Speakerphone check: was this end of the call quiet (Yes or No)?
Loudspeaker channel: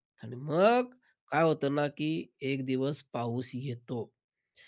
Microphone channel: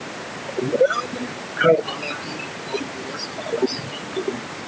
Yes